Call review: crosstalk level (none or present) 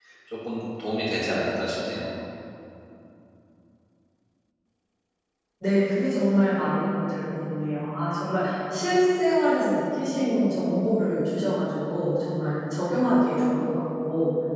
none